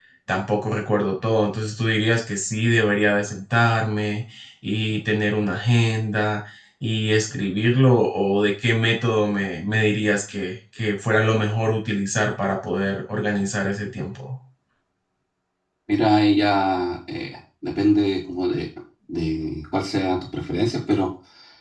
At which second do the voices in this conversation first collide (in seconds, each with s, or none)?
none